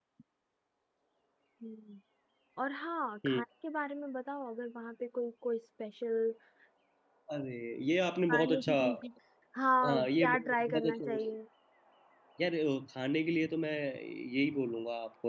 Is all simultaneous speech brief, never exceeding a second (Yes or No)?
No